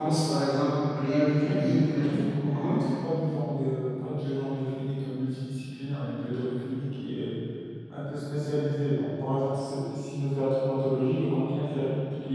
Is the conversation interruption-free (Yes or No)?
No